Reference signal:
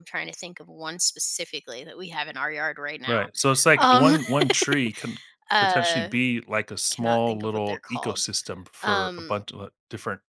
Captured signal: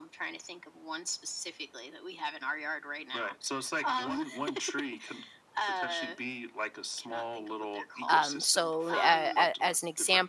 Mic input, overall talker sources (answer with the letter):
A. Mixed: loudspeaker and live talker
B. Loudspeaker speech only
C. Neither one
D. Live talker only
A